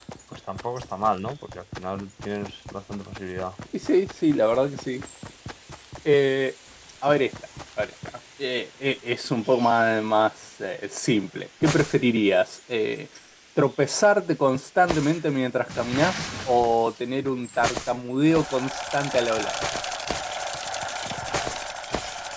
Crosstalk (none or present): none